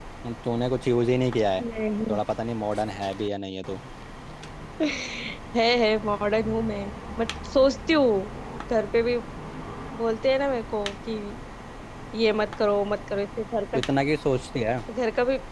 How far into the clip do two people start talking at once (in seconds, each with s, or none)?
none